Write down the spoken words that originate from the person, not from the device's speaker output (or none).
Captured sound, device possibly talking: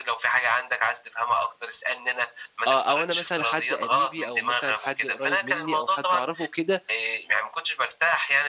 آه، أو أنا مثلًا حد قريبي أو مثلًا حد قريب مني أو حد أعرفه كده،